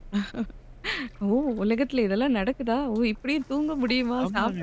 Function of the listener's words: taking over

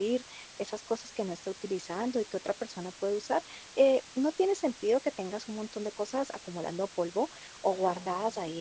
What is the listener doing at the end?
listening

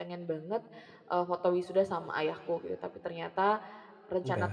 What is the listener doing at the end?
listening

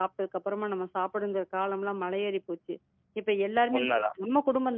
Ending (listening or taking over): listening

